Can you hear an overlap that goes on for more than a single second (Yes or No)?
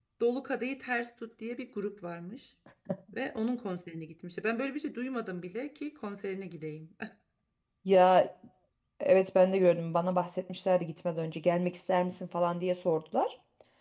No